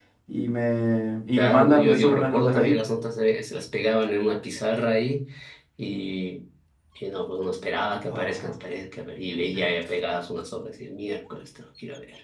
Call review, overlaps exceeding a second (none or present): present